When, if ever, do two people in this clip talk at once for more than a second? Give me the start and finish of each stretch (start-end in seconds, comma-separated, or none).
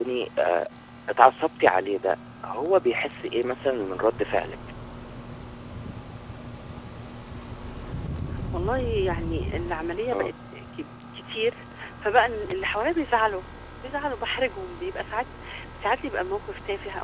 none